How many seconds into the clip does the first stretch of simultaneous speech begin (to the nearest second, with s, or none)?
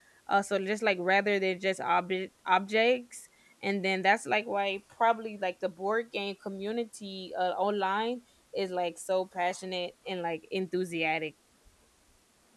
none